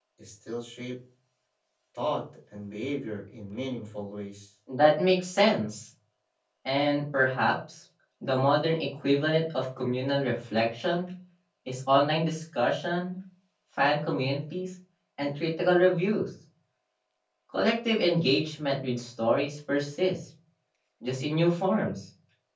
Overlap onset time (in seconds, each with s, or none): none